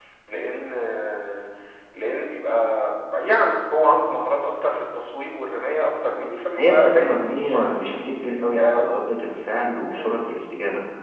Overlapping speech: Yes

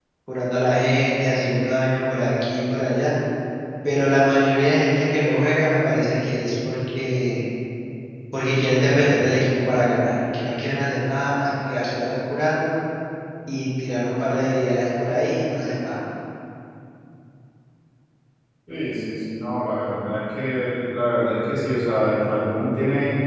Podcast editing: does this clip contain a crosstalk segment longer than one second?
No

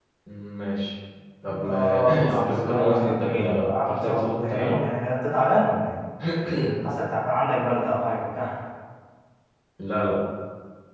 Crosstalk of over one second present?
Yes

